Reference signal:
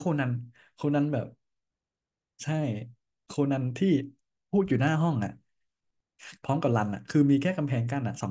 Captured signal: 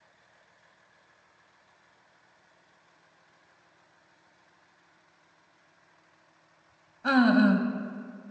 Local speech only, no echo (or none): เออเออ